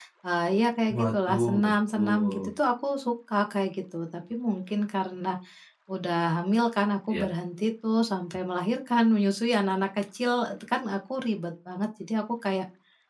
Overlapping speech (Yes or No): Yes